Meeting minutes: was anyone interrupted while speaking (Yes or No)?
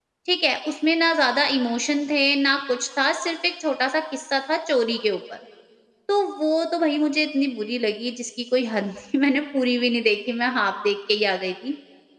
No